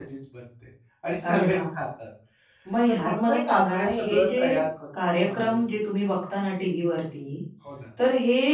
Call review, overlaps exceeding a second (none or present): present